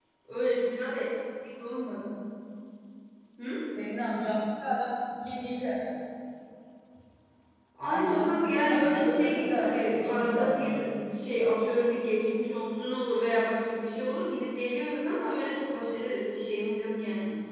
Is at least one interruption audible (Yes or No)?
Yes